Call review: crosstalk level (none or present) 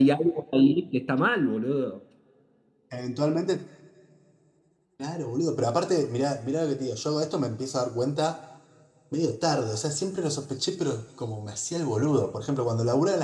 none